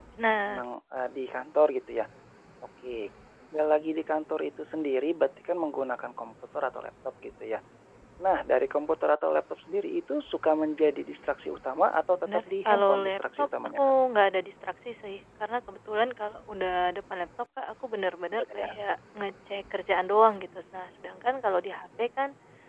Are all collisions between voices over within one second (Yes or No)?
No